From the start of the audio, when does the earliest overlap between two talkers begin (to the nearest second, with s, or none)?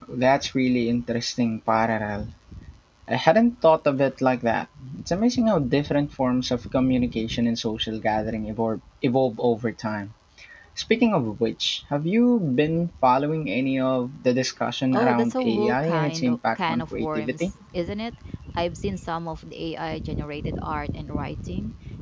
15 s